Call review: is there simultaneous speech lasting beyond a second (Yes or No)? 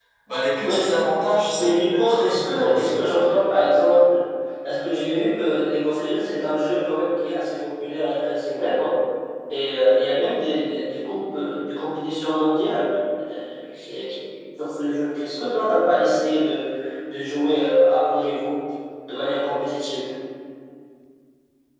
Yes